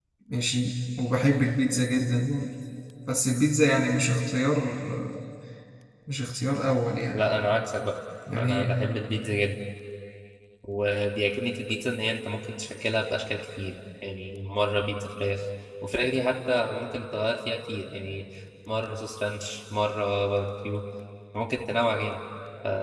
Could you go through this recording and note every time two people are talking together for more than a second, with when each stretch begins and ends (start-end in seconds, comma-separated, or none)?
none